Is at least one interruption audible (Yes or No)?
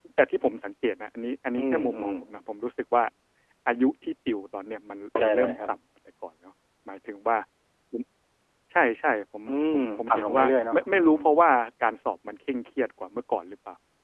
Yes